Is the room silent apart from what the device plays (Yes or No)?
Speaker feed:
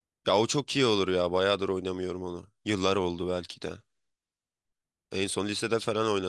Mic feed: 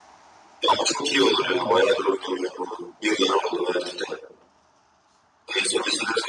No